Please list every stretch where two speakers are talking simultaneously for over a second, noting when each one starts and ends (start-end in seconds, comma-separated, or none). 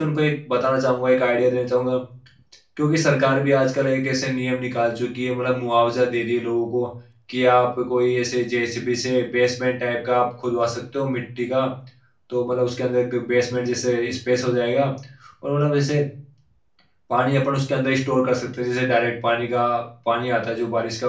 none